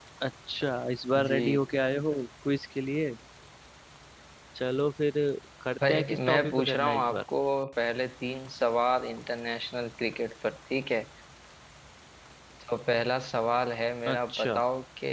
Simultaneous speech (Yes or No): Yes